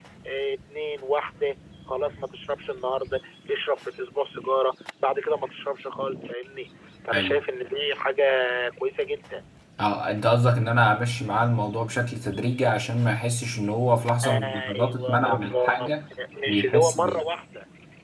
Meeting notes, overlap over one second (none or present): present